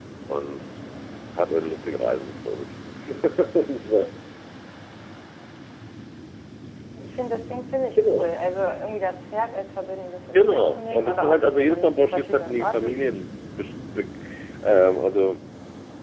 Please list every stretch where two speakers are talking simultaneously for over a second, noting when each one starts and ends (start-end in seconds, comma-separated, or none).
10.3-13.2